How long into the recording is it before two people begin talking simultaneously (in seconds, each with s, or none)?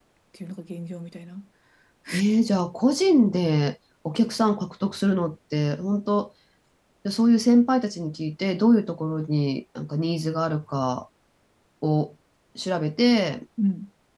none